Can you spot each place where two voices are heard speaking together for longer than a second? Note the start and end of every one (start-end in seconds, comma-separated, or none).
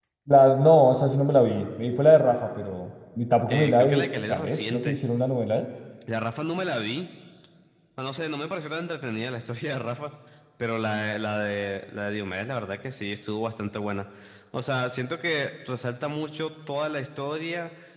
3.5-5.0